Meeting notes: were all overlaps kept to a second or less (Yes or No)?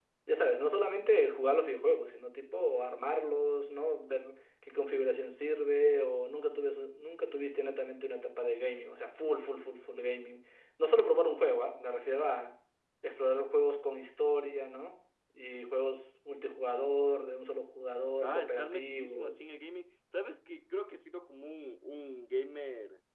No